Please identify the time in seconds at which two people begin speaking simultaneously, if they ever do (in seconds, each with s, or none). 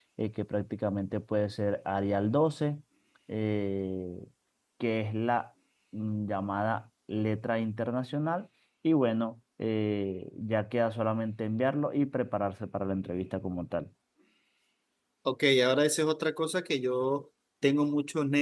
none